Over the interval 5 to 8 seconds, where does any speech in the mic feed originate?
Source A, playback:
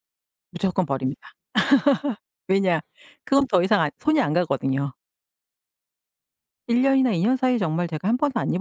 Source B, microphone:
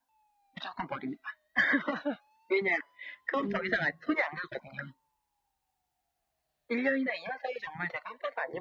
echo only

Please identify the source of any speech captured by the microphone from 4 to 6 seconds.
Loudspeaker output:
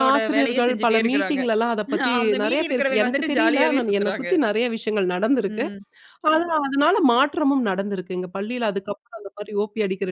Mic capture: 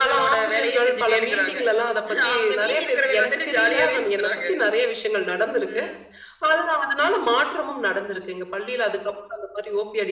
echo only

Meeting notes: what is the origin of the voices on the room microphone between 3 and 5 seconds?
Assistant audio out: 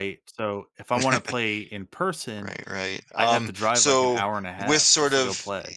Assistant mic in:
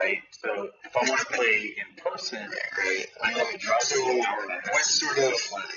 echo only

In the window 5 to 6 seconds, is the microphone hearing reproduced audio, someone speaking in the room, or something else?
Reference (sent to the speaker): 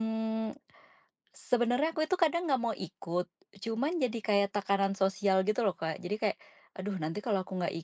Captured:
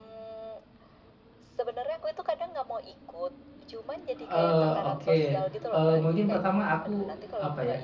both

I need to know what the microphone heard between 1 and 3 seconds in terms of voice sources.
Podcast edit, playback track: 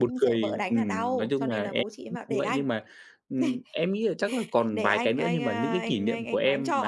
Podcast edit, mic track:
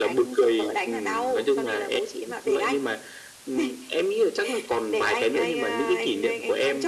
echo only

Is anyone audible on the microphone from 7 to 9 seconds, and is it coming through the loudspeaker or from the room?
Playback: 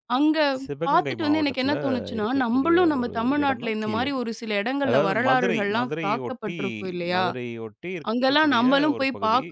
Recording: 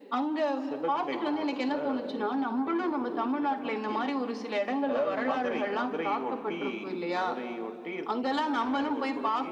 echo only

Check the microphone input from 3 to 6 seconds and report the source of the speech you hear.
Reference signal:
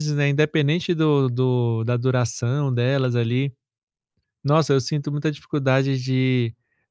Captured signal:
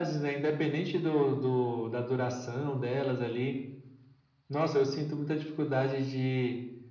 echo only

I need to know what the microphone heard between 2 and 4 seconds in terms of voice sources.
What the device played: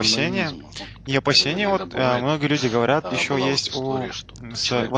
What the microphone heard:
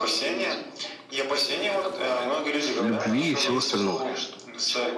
both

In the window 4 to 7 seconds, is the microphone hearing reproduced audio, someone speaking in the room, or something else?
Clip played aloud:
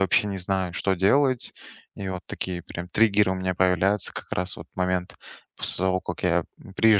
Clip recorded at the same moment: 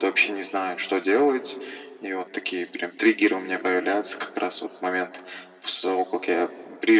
echo only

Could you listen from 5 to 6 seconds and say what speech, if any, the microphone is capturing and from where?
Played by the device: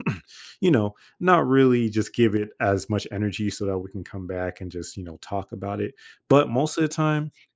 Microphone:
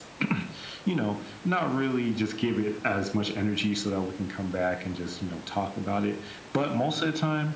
echo only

